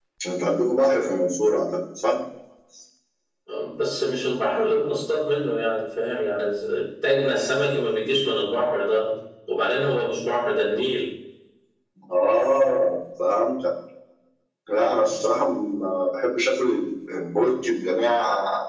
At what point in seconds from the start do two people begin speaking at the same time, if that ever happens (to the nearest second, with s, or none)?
none